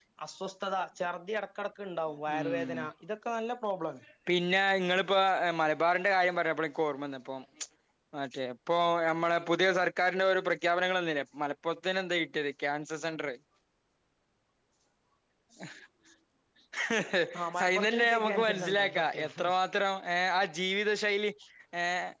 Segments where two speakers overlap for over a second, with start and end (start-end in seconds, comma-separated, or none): 17.6-19.3